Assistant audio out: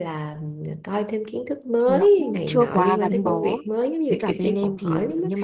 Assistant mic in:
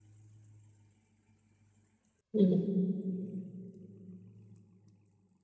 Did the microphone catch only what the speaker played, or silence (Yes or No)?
No